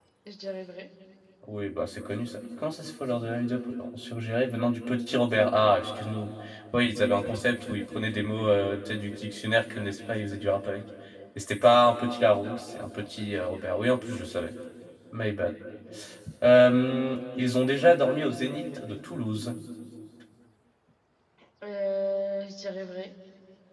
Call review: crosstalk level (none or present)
none